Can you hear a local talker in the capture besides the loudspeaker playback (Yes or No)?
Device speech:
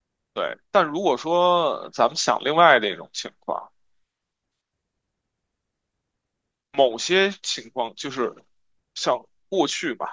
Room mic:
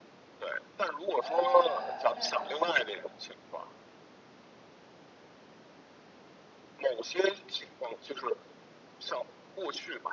Yes